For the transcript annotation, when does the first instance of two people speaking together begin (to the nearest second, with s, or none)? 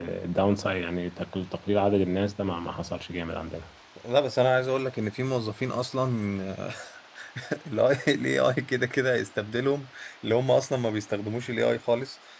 none